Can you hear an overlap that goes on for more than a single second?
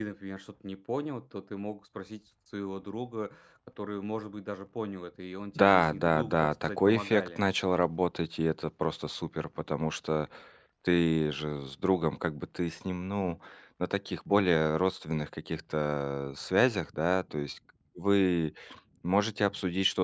Yes, from 5.6 s

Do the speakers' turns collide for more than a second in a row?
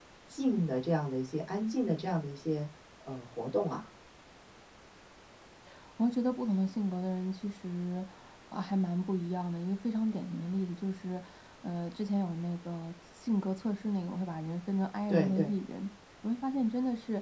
No

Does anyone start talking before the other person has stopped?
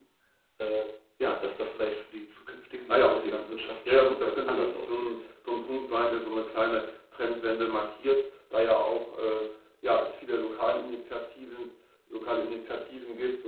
Yes, from 2.9 s

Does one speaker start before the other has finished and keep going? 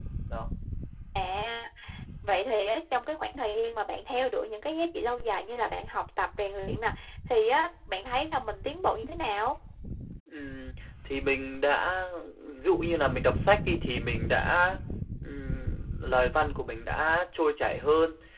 No

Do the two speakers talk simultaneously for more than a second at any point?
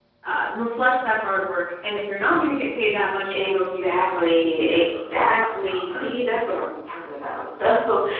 Yes, from 3.3 s

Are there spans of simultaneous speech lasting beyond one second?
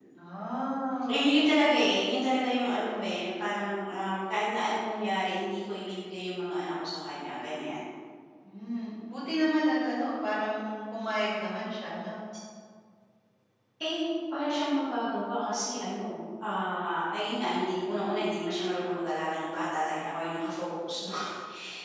No

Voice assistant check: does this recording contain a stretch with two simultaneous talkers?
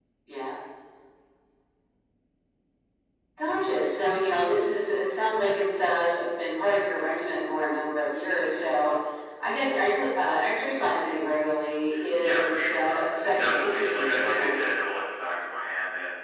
Yes, from 11.9 s

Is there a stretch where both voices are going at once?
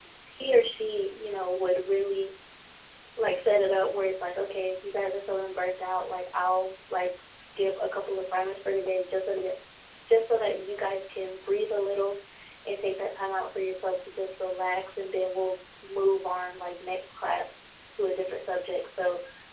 No

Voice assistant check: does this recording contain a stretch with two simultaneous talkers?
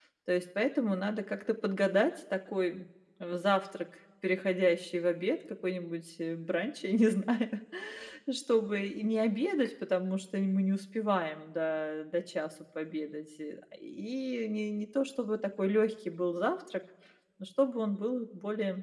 No

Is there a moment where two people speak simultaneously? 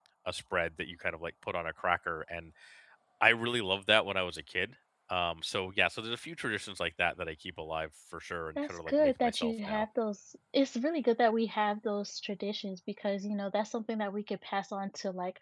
Yes, from 8.6 s

